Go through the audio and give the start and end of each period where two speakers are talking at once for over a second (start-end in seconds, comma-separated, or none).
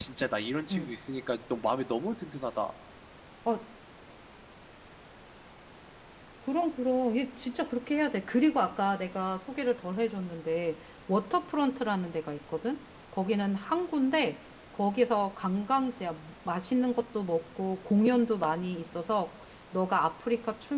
none